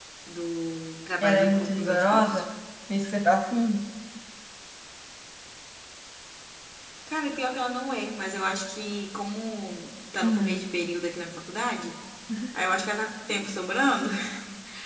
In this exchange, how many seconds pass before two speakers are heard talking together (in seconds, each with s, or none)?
1.2 s